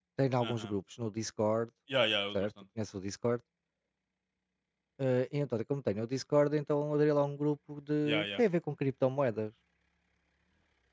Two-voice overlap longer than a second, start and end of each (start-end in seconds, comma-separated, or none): none